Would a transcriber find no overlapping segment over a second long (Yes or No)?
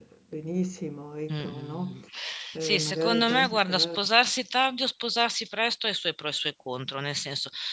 No